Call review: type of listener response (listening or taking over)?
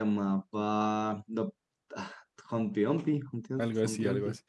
taking over